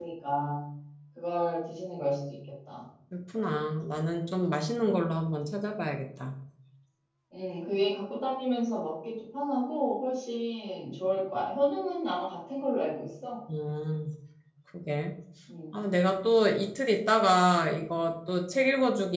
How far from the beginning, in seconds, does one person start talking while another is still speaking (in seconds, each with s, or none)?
none